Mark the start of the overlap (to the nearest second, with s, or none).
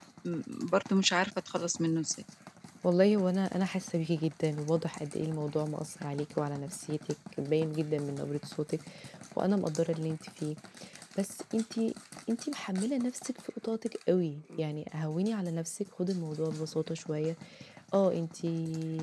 none